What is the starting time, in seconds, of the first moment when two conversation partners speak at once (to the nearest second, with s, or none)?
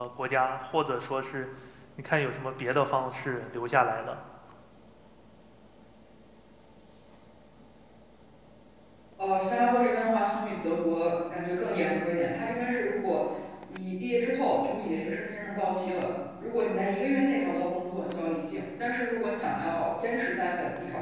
none